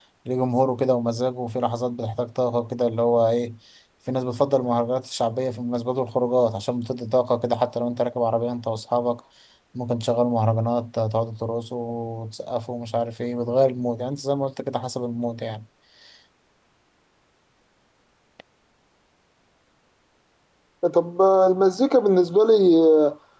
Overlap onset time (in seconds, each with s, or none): none